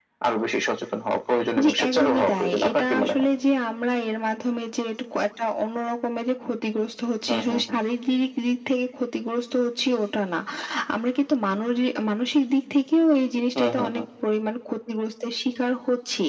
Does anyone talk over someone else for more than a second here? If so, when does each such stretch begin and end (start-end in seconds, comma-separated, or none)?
1.6-3.2